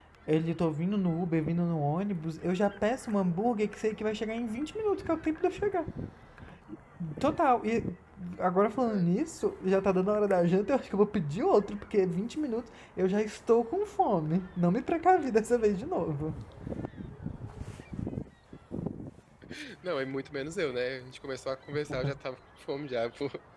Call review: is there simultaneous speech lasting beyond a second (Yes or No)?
No